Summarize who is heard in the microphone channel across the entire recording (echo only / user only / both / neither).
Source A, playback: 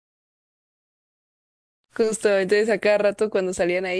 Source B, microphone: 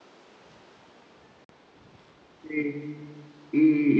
user only